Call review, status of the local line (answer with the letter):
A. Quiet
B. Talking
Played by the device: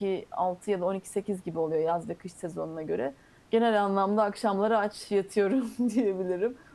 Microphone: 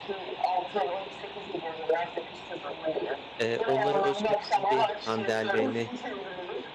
B